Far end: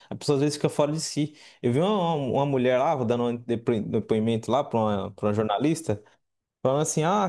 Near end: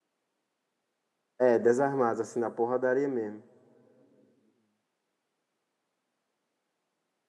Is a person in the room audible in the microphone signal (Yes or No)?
Yes